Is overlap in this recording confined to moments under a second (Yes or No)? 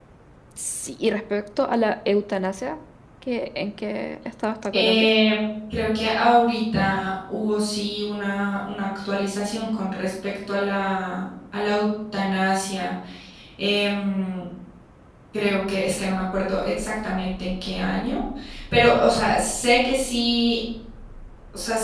Yes